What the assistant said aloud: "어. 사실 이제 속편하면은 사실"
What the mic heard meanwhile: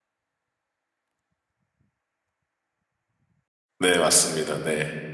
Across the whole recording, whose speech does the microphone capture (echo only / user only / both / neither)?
user only